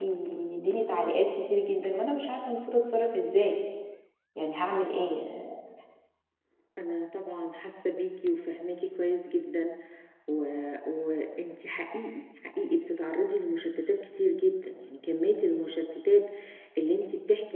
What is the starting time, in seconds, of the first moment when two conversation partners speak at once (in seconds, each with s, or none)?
none